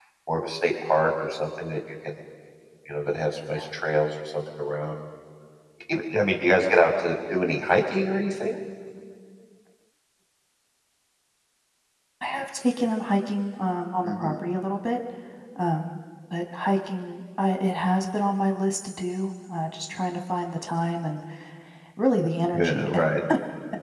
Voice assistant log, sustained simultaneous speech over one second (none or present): none